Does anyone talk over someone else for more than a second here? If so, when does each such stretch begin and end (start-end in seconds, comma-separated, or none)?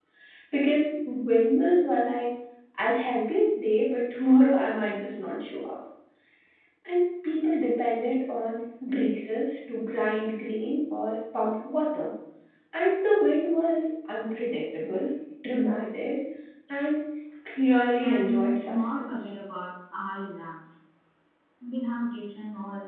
18.0-19.3